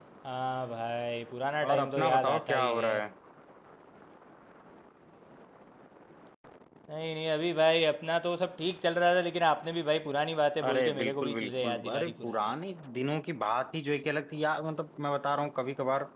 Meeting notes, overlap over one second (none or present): present